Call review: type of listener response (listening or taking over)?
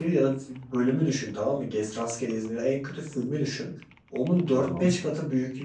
listening